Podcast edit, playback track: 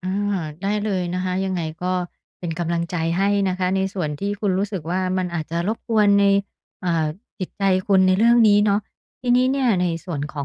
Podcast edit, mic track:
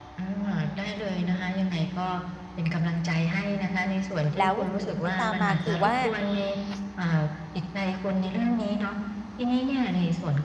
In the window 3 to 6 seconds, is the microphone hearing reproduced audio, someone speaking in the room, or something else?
both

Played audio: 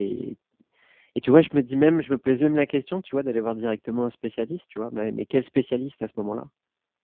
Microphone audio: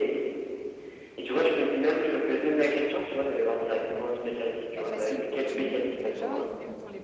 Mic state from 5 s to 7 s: both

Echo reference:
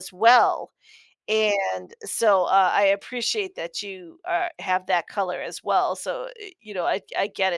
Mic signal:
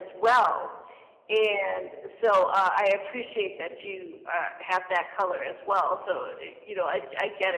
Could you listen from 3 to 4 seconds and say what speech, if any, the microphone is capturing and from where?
echo only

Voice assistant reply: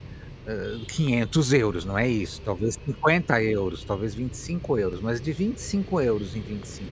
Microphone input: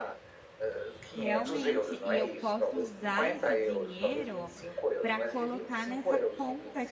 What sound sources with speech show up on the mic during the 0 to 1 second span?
echo only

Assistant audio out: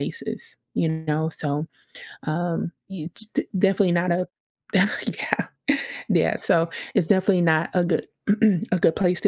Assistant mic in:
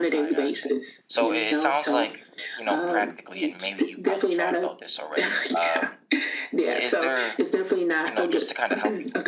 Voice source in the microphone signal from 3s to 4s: both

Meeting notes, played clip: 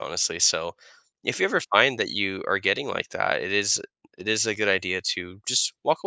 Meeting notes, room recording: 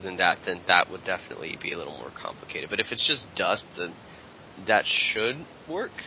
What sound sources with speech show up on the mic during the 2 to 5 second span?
user only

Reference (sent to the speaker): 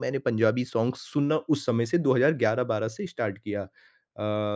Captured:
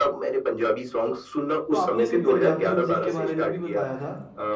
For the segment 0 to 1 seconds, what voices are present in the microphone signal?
echo only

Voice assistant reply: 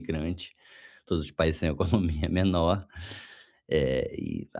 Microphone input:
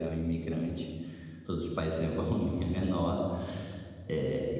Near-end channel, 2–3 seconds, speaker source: echo only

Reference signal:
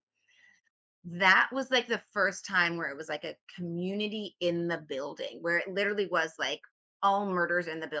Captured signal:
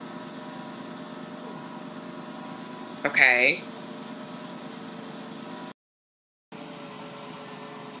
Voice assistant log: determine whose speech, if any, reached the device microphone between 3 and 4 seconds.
user only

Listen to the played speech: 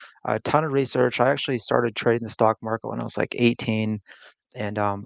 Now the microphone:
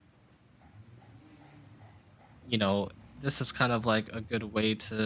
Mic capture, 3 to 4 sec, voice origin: user only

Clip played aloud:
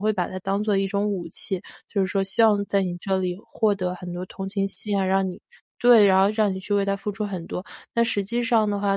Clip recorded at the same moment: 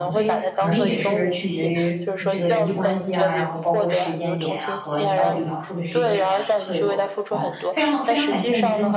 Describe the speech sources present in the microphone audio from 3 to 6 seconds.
both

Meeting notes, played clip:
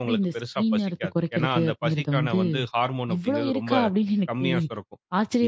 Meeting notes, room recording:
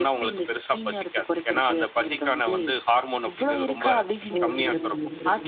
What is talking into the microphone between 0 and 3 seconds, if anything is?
echo only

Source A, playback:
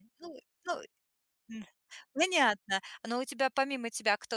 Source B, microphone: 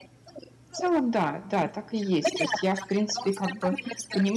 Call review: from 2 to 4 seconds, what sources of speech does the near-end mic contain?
both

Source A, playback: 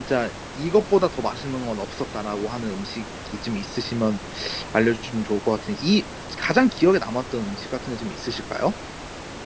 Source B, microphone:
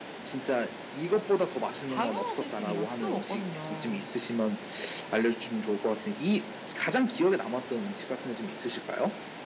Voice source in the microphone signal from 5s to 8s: echo only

